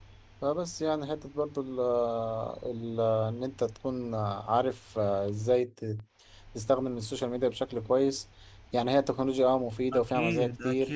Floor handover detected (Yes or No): Yes